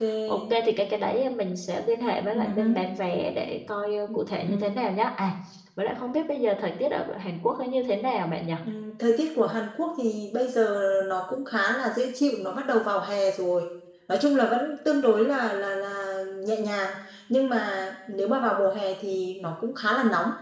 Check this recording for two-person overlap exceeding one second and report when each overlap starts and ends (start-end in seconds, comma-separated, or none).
none